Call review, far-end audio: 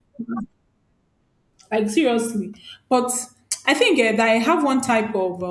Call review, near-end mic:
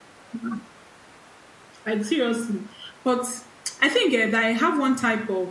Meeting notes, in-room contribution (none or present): none